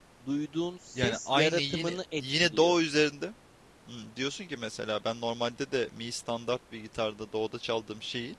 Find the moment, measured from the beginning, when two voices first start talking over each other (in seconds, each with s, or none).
0.9 s